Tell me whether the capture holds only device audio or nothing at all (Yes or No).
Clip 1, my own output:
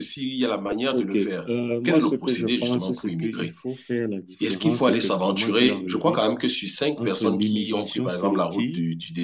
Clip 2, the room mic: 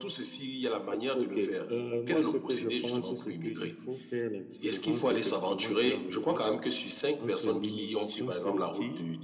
Yes